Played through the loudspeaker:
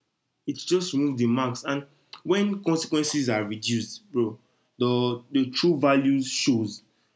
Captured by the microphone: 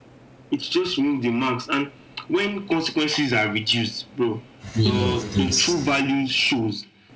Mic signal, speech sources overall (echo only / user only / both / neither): both